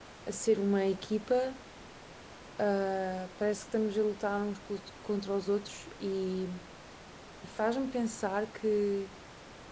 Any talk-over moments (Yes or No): No